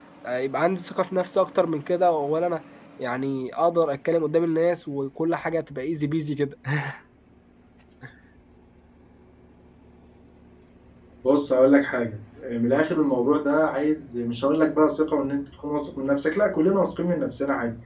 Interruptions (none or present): none